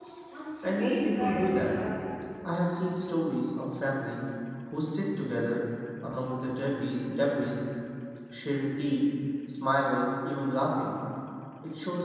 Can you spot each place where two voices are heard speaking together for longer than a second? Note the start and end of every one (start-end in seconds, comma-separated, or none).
0.6-1.8